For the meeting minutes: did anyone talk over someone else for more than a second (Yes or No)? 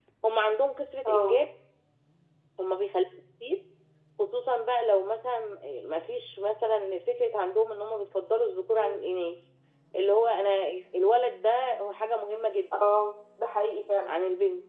No